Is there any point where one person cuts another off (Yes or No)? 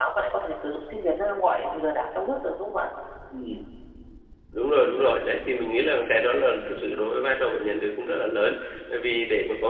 No